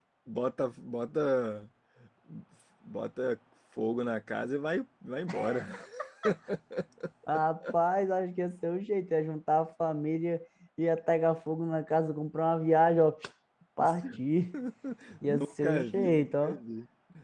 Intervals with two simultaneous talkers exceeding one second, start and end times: 15.2-16.6

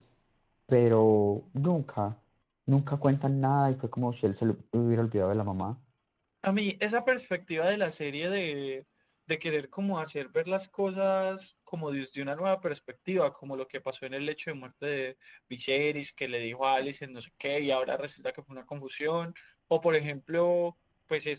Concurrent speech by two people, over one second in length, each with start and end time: none

